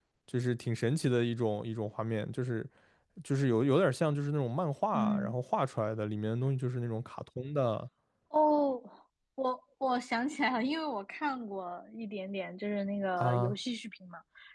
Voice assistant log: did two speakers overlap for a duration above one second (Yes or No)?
No